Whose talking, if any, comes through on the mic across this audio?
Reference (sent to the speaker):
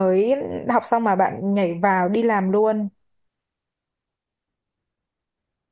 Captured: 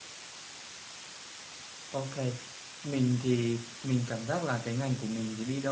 user only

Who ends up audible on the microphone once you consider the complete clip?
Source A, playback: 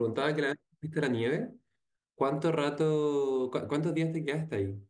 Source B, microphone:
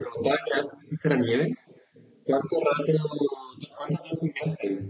echo only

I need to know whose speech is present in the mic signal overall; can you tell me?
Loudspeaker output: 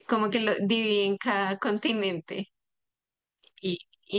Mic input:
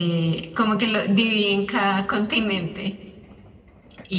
echo only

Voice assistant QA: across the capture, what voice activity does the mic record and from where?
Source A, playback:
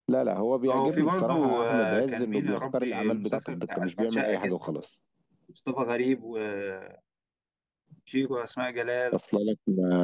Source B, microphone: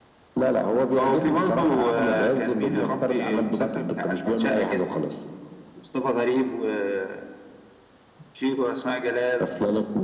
echo only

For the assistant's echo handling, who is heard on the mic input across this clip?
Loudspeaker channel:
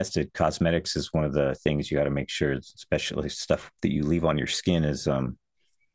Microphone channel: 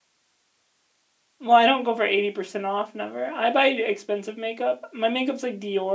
user only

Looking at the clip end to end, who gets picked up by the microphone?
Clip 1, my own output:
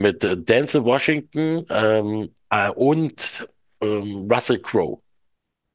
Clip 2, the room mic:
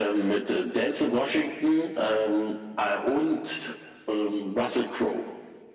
echo only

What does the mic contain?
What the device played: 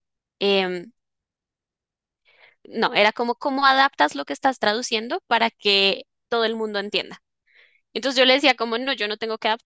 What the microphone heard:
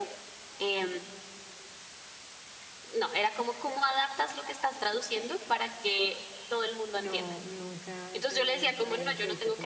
both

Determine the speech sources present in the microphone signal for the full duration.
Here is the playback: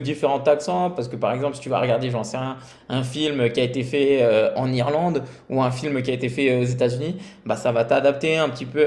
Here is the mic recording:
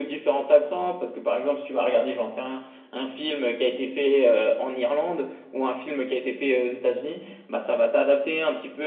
echo only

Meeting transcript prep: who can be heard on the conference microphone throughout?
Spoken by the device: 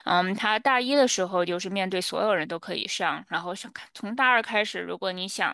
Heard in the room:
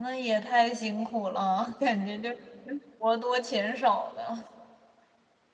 user only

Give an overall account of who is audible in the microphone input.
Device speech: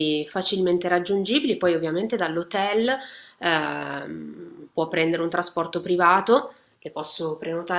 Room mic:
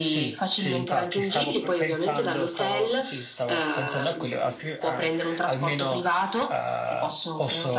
both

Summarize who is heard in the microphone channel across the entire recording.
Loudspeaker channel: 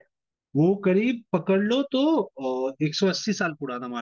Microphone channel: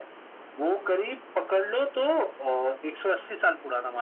echo only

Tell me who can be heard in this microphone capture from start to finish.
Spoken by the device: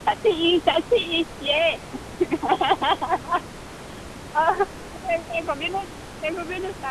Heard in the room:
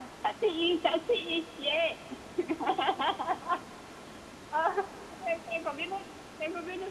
echo only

